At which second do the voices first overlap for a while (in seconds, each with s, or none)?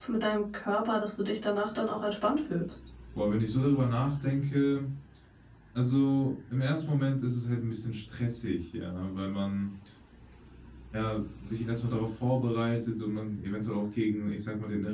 none